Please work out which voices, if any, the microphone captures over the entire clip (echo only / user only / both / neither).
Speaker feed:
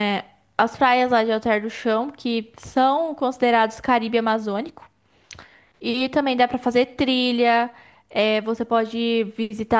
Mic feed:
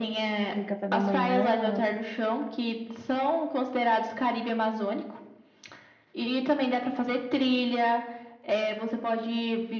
both